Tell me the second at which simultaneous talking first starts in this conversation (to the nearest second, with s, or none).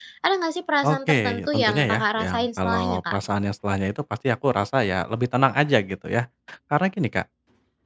1 s